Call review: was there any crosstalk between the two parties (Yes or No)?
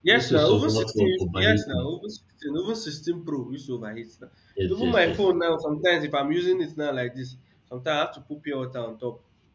Yes